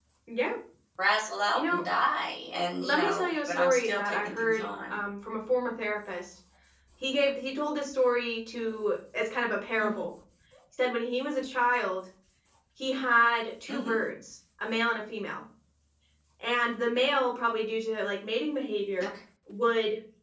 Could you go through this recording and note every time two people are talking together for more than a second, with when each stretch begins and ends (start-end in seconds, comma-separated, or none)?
2.8-4.9